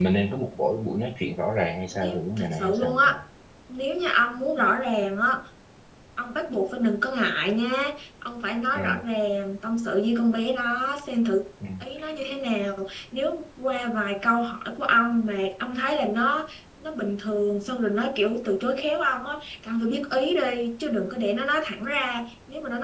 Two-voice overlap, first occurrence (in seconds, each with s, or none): 1.9 s